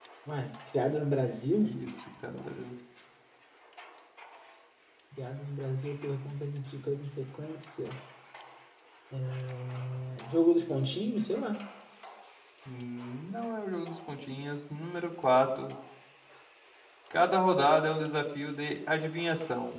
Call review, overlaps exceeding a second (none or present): none